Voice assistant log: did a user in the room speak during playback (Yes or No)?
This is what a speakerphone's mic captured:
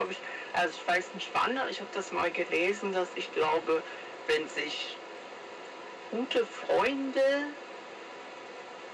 No